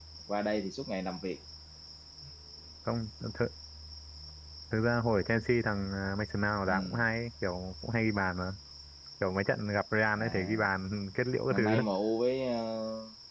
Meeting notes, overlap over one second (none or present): none